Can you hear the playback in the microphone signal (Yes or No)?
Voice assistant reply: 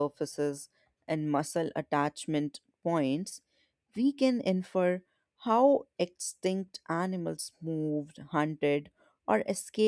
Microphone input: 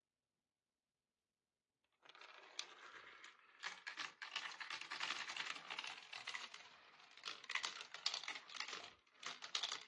No